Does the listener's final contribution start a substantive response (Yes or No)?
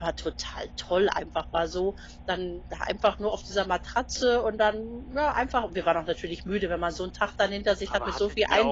Yes